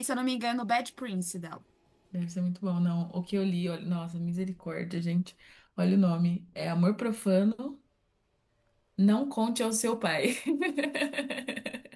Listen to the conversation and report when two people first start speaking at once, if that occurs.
none

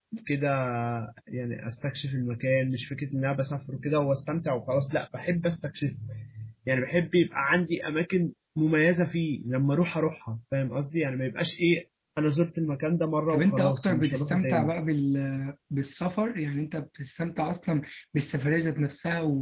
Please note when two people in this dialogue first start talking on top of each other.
13.3 s

